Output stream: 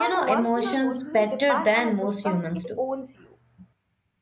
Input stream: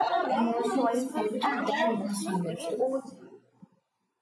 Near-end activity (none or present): present